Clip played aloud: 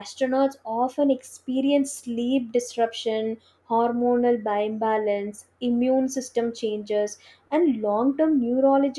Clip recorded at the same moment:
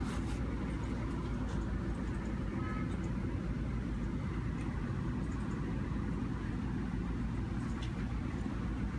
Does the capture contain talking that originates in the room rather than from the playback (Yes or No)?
No